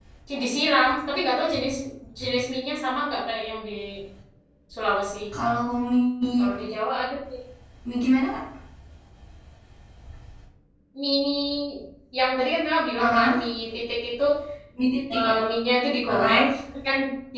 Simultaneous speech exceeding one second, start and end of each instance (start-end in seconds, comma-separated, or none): none